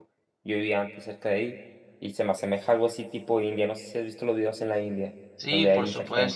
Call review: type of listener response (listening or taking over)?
taking over